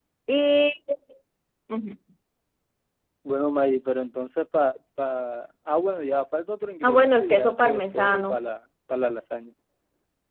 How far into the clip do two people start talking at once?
6.8 s

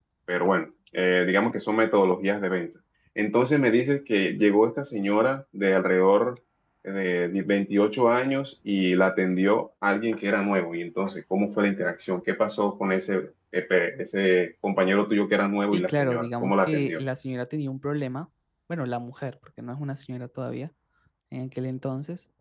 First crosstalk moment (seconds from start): 15.7 s

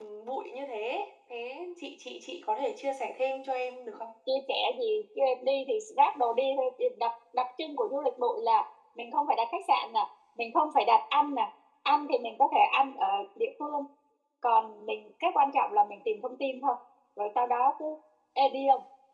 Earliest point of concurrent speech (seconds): none

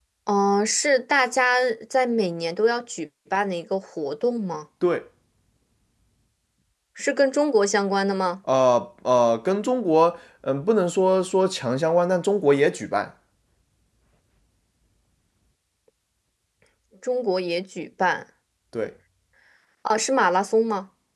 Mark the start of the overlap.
none

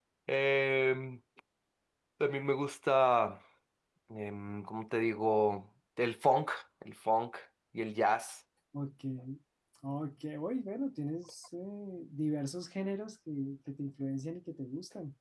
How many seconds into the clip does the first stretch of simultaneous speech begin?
none

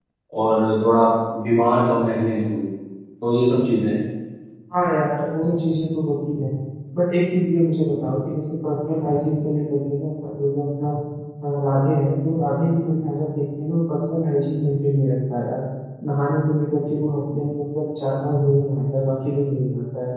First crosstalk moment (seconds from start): none

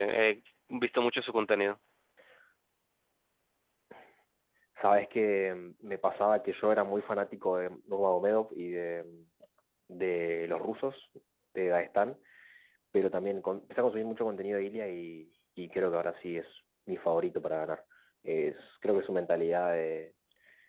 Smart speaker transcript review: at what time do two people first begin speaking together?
none

